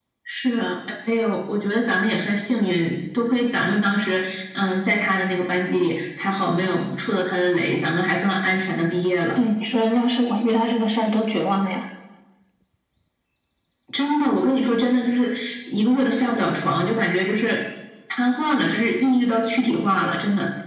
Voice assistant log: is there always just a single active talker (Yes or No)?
Yes